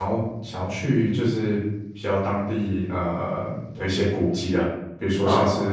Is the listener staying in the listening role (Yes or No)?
Yes